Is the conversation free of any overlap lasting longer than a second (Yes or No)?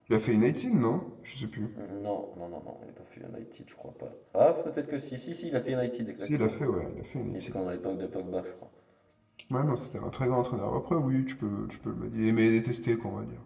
Yes